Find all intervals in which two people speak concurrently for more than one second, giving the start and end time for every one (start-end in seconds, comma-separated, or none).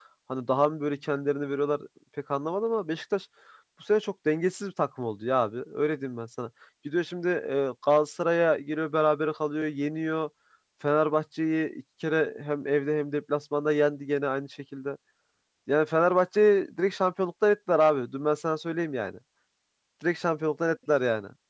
none